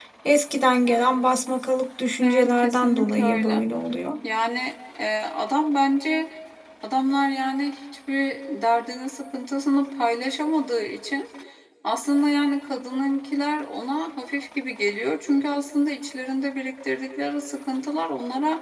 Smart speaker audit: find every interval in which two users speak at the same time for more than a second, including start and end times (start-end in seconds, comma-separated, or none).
2.2-3.6